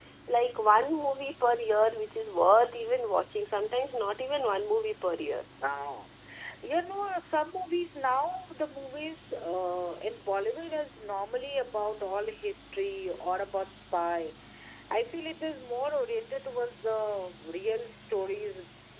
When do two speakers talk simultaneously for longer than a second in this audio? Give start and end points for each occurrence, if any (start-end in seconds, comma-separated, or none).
none